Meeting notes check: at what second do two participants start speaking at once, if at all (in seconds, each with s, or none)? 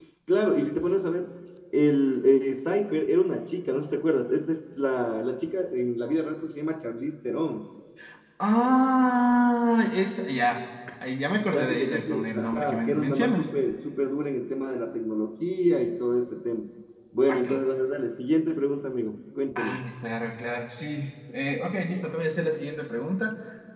11.5 s